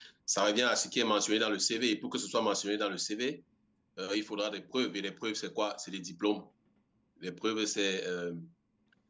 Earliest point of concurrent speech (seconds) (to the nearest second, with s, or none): none